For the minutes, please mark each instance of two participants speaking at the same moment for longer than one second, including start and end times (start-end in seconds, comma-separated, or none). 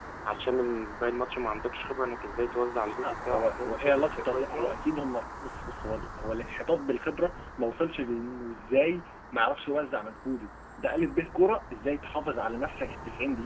2.9-4.8